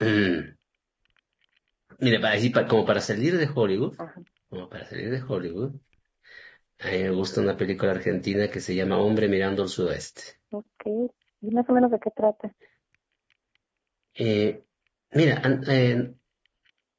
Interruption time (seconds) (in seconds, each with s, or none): none